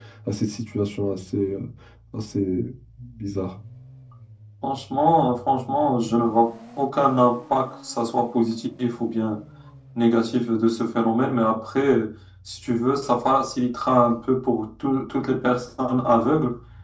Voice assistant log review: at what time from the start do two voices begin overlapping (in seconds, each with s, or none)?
none